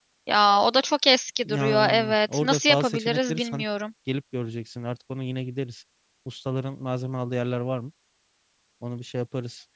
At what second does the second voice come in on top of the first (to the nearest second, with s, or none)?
1 s